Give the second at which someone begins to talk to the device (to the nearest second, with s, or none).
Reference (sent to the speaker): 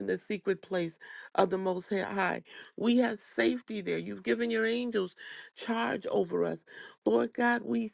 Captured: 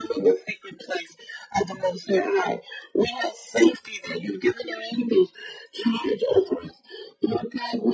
none